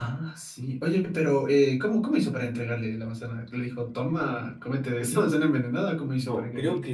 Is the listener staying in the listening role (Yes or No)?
No